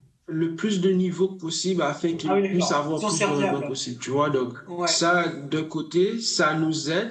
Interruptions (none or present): present